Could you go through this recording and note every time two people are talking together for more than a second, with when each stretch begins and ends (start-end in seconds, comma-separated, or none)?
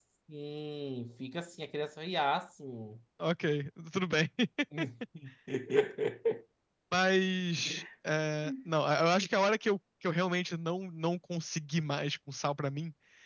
none